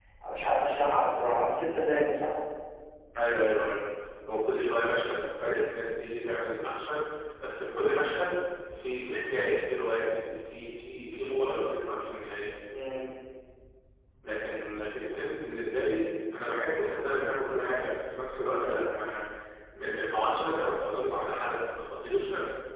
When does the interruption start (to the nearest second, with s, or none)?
none